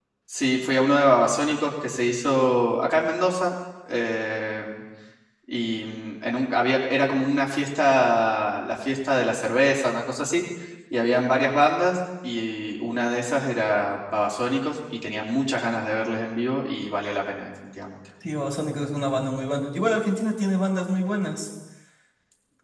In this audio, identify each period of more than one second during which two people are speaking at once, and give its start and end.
none

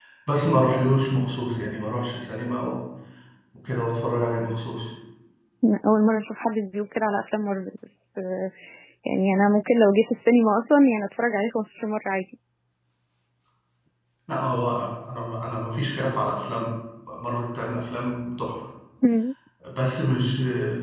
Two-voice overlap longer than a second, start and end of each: none

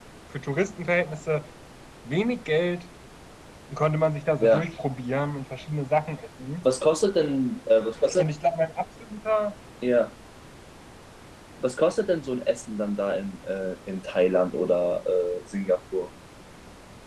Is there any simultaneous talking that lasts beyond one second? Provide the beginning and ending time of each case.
none

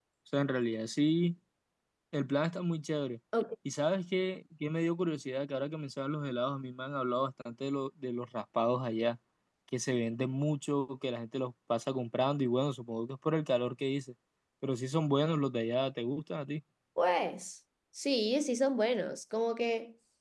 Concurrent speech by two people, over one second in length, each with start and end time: none

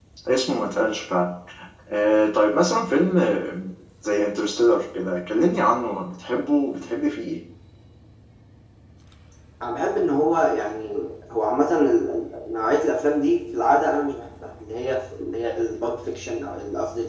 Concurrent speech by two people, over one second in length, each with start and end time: none

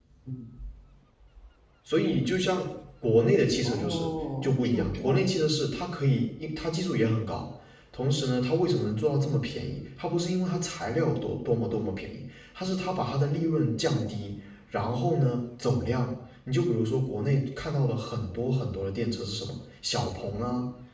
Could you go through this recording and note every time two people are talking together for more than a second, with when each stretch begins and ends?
3.6-5.5

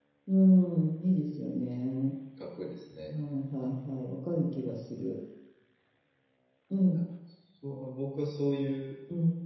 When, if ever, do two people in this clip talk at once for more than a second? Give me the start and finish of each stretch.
none

